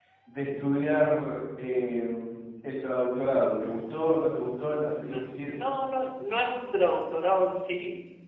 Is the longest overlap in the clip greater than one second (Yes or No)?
No